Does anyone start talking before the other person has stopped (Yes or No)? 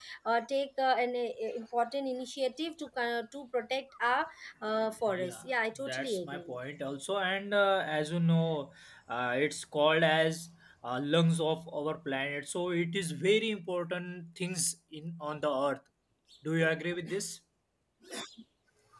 Yes